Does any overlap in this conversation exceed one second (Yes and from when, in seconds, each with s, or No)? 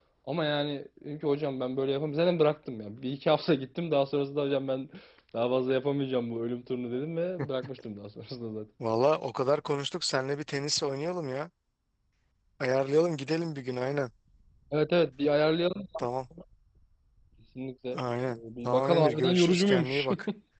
Yes, from 18.3 s